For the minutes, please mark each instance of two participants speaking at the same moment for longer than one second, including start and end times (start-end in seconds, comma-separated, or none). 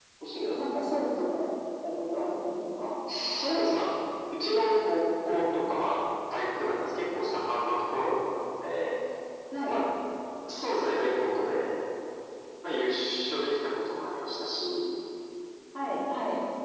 none